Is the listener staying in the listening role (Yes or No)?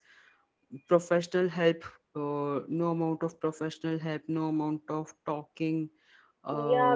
No